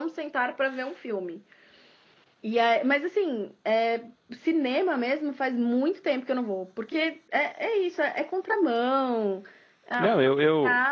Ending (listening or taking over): taking over